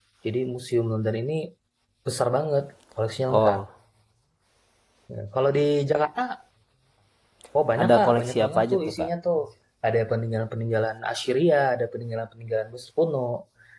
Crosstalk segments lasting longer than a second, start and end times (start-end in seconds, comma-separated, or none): 7.8-9.1